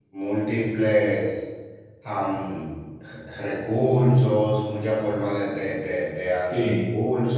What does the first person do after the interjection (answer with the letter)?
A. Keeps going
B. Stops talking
A